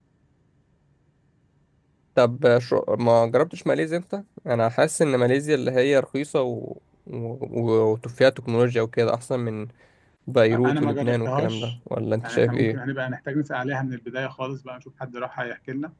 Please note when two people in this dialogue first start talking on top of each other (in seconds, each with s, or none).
10.5 s